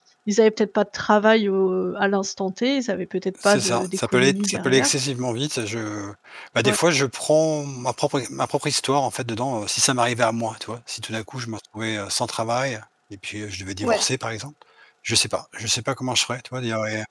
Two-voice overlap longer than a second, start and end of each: 3.4-4.9

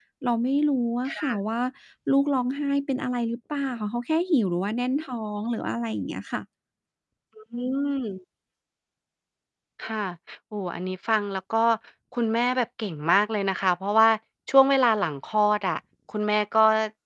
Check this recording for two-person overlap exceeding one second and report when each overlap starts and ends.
none

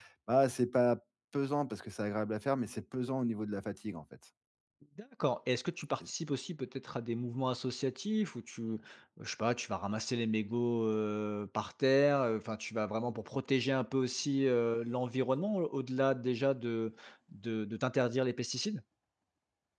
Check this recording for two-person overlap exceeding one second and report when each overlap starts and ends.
none

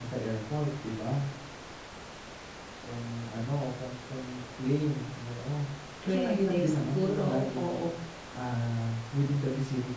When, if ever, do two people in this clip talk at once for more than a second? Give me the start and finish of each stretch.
6.1-7.8

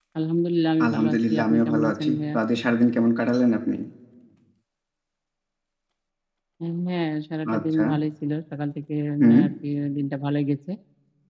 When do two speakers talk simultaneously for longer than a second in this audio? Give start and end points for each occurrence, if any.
0.9-2.4

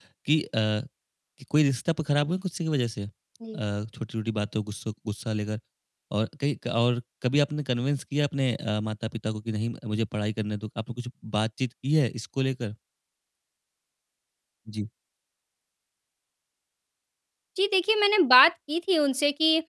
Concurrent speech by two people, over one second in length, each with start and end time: none

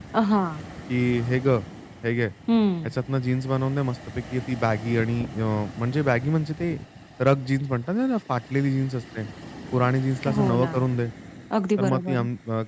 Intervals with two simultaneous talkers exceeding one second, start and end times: none

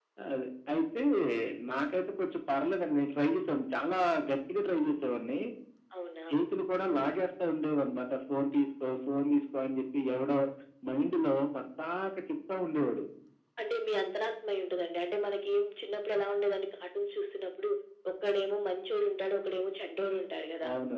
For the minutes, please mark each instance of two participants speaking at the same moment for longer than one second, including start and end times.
none

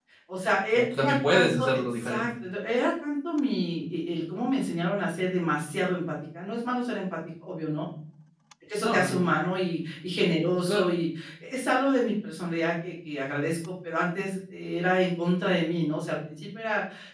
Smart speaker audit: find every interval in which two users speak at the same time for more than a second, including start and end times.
0.7-2.3

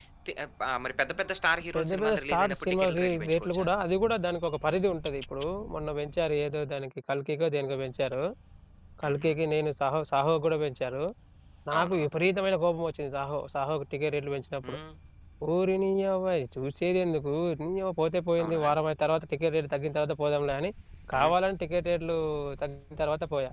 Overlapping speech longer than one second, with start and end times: 1.8-3.7

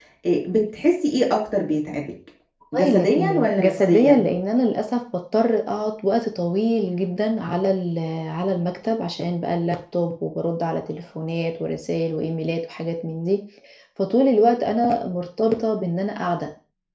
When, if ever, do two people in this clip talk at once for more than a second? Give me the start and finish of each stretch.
2.7-4.3

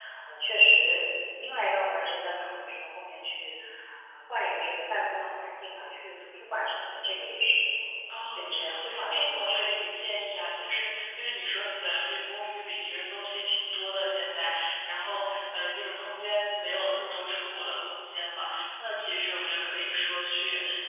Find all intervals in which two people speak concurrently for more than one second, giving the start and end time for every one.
8.1-9.9

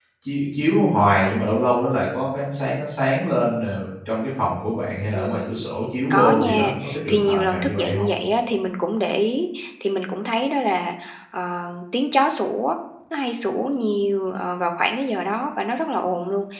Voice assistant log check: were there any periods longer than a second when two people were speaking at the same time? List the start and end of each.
6.1-8.1

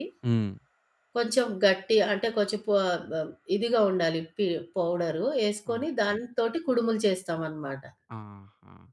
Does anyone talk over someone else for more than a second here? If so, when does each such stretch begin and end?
none

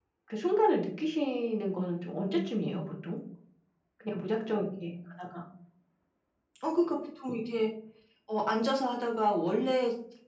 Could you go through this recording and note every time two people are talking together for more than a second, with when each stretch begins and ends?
none

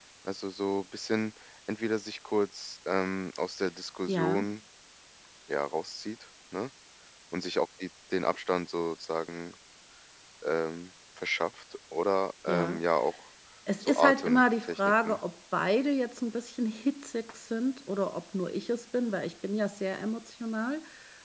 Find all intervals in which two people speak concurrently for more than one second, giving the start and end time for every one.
13.8-15.2

